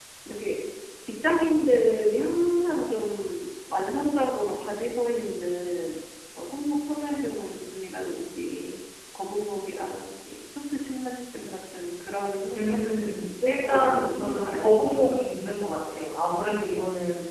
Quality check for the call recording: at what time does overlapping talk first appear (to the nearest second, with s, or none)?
13 s